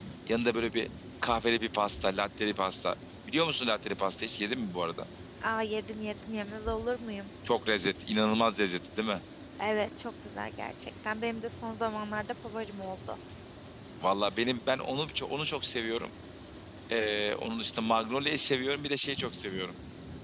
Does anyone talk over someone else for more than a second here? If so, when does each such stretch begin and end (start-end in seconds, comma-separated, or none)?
none